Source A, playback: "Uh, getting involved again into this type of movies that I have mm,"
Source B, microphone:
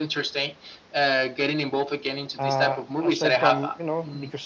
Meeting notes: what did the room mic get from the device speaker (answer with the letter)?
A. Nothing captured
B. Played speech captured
B